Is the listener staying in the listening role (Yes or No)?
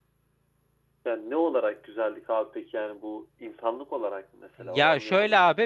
No